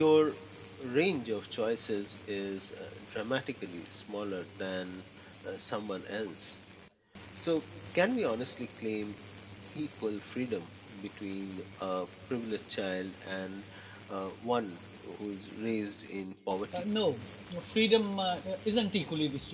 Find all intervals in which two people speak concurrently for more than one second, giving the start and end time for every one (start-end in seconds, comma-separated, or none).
none